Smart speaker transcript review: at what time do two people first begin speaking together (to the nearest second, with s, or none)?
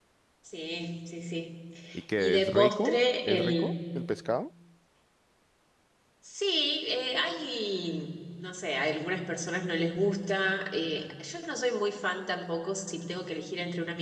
2 s